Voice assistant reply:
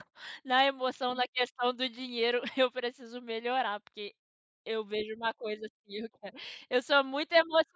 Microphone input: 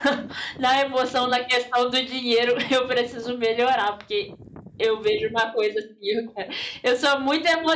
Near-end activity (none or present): none